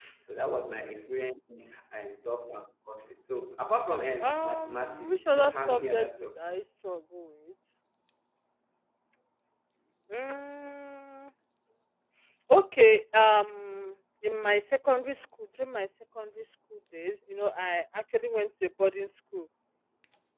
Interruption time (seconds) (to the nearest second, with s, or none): 4 s